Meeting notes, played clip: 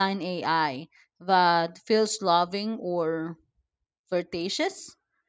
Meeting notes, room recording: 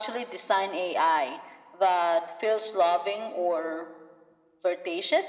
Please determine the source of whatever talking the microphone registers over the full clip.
echo only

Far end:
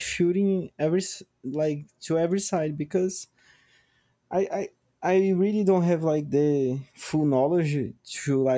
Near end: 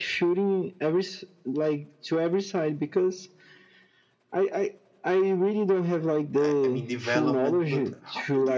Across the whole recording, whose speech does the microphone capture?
both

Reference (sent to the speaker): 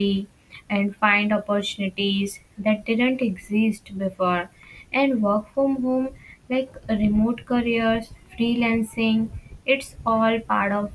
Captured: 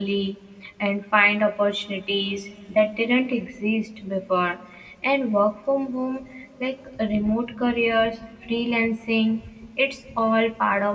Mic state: echo only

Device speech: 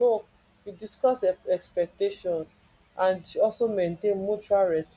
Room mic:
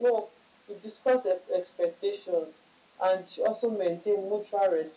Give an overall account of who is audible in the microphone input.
echo only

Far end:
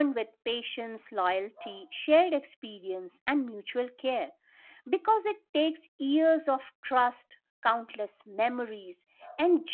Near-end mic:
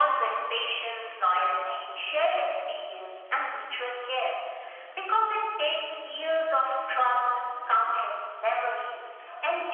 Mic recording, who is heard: echo only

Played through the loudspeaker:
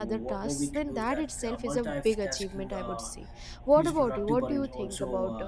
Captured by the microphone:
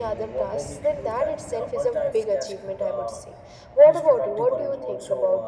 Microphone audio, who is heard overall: echo only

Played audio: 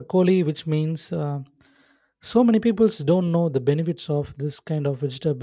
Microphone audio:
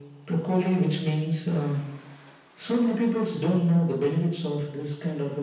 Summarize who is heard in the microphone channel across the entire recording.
echo only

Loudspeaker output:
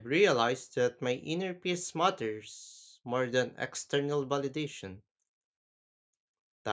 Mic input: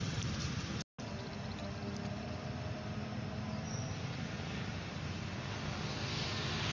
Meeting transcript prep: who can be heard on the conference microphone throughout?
neither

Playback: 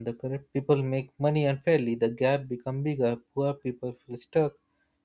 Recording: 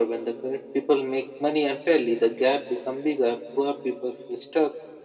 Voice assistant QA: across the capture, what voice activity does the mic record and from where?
echo only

